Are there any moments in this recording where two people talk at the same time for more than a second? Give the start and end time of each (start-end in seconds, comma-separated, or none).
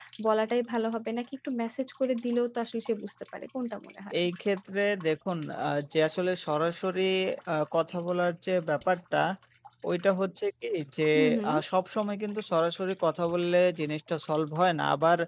none